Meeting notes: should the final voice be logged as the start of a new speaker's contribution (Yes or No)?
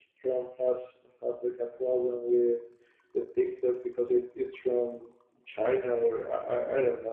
Yes